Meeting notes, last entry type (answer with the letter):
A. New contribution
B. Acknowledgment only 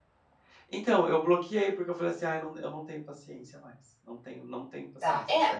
A